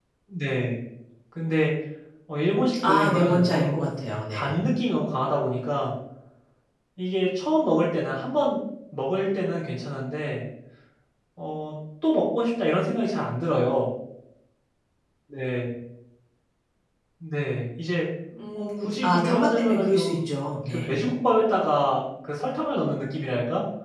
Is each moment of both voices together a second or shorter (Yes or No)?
No